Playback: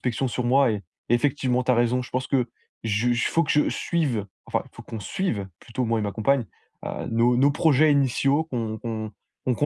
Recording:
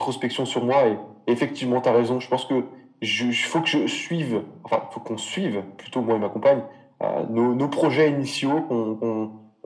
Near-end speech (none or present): none